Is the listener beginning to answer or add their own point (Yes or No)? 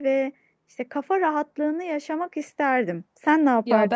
Yes